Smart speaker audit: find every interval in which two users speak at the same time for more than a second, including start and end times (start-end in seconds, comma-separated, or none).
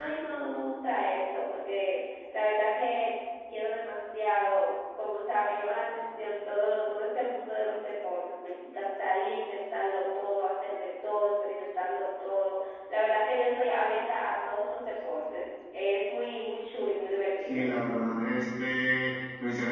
none